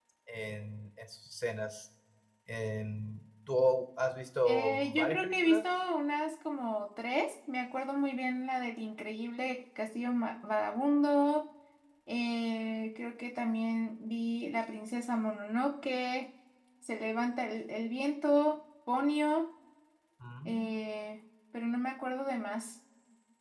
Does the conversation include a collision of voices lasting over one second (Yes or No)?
Yes